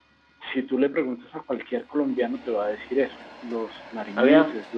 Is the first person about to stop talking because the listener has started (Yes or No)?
No